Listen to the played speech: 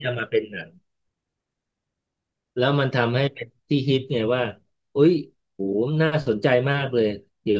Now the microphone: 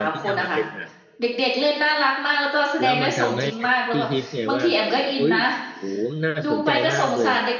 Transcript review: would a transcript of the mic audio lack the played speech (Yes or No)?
No